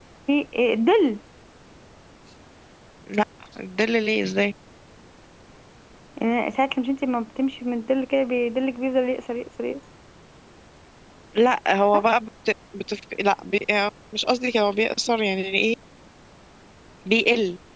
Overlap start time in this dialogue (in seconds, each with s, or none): none